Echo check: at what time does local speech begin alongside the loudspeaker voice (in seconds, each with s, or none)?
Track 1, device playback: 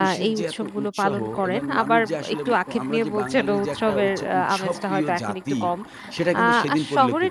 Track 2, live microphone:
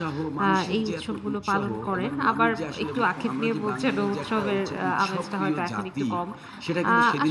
none